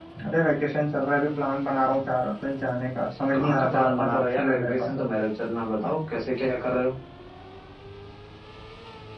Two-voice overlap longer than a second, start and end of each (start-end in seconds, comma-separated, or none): 3.3-4.9